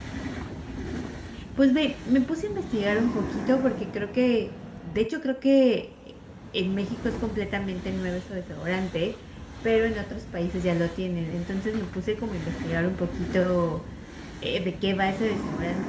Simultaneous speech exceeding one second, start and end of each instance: none

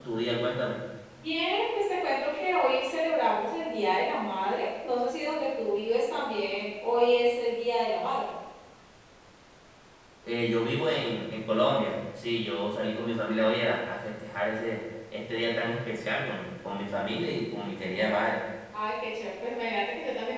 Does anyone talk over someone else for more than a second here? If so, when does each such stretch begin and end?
none

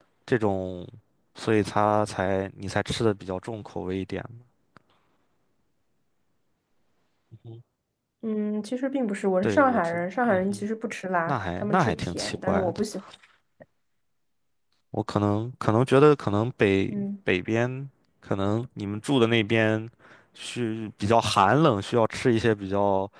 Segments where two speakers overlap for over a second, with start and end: 9.4-10.7, 11.3-12.8

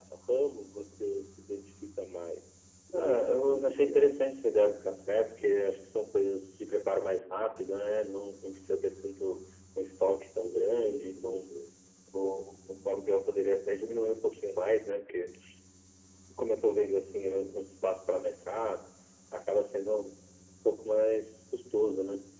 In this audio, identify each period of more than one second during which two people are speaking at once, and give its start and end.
2.9-4.1

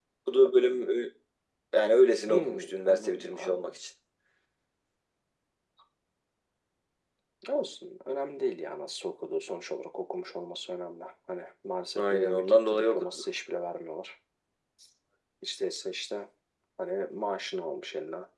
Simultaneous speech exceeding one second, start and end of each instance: 2.3-3.8, 11.9-13.2

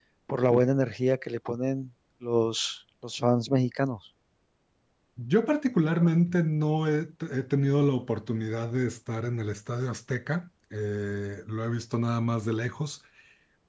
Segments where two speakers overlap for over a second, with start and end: none

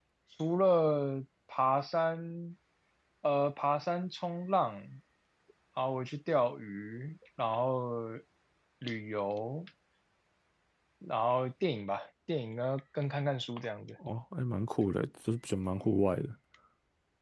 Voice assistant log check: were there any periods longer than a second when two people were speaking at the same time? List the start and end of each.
none

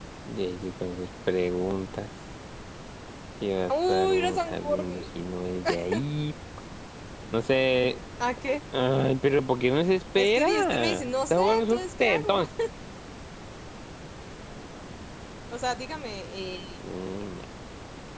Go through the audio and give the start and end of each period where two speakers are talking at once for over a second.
3.7-5.0, 10.2-12.4

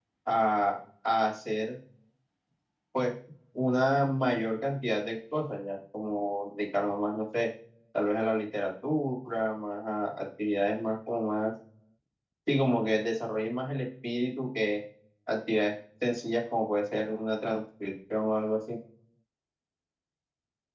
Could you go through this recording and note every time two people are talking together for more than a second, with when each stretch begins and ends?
none

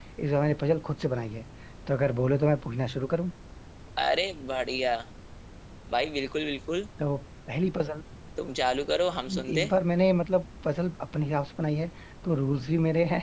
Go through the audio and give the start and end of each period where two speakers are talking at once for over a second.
none

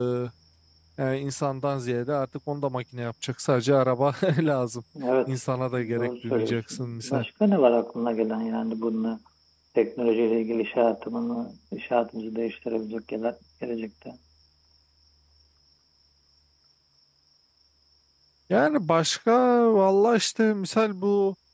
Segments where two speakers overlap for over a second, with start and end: 6.0-7.2

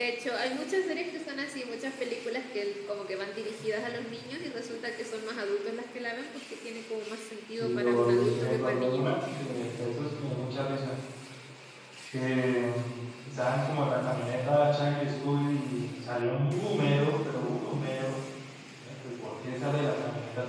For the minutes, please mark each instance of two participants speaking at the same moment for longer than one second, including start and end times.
7.5-9.1

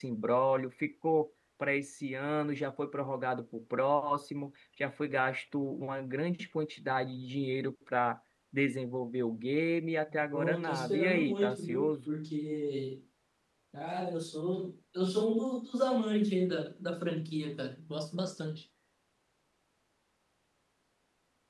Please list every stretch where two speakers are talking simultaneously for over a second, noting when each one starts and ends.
10.3-11.9

